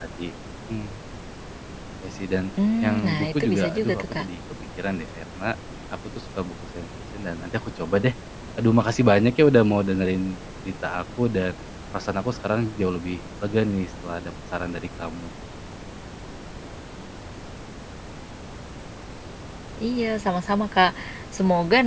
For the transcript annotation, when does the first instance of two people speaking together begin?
3 s

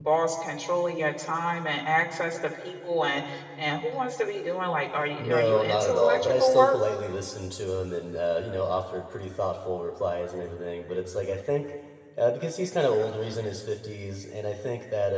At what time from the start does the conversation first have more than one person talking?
5 s

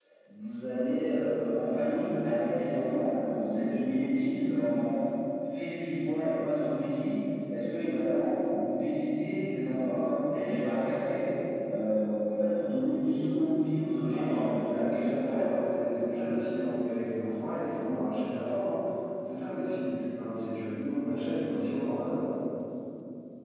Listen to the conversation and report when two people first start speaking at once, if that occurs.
14 s

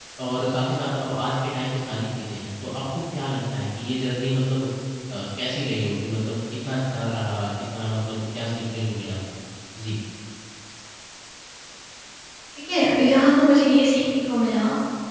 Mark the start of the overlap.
none

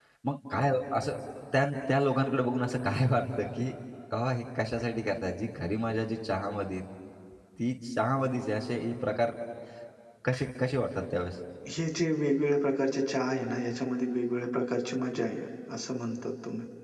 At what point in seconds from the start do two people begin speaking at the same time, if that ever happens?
none

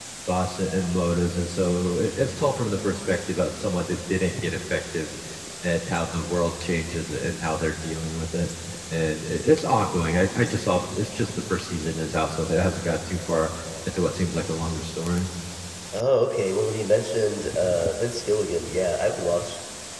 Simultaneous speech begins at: none

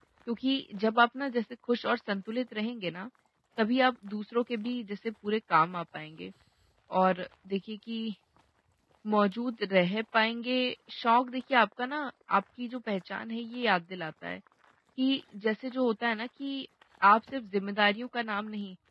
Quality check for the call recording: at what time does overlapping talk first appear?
none

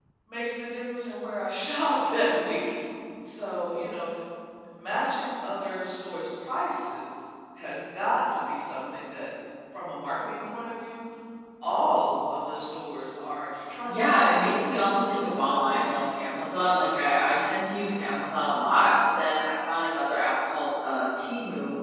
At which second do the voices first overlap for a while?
14 s

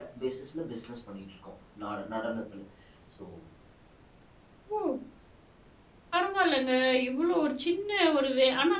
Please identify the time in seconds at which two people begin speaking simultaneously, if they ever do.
none

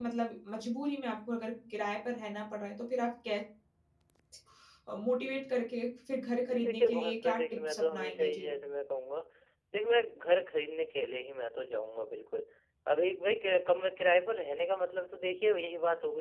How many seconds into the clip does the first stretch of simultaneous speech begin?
6 s

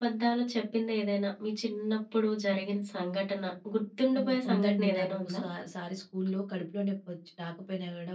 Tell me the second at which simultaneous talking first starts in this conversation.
4 s

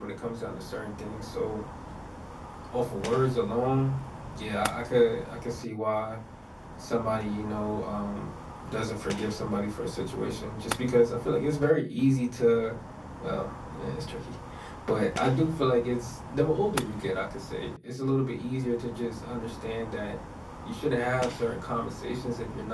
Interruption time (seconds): none

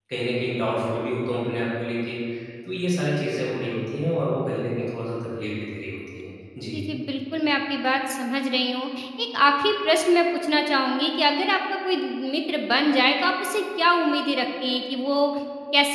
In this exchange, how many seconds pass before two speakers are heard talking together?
none

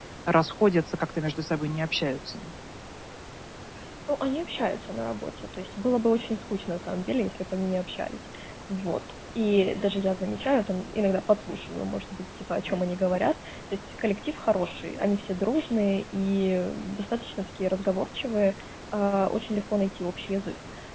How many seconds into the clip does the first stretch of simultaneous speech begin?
none

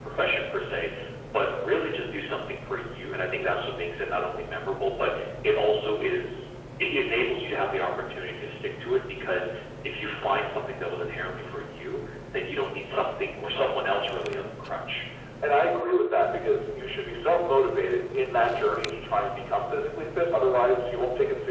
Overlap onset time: none

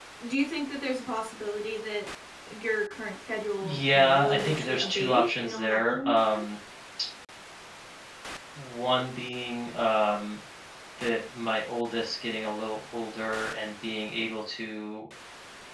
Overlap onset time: 4 s

